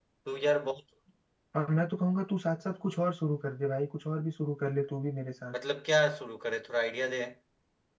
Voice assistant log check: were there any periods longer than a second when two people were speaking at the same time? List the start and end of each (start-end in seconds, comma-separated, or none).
none